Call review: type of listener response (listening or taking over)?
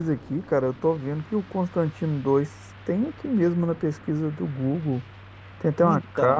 listening